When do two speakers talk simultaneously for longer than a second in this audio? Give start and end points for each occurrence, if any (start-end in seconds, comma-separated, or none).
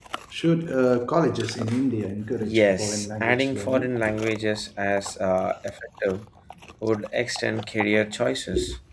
2.5-3.9